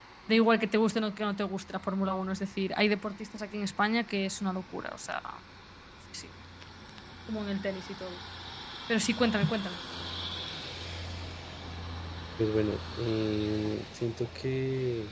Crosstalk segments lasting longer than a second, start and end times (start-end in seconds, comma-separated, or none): none